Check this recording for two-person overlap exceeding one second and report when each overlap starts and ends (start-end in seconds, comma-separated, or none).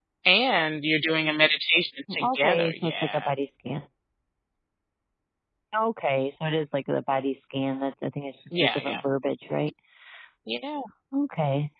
2.1-3.3